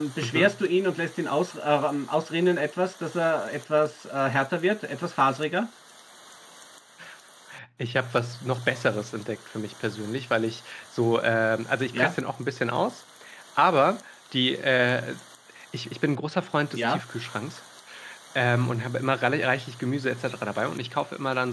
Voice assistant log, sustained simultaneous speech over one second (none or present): none